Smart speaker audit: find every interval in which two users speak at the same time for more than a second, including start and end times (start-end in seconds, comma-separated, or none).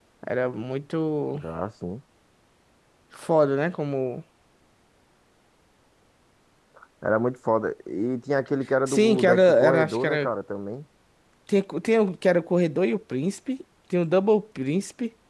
8.9-10.3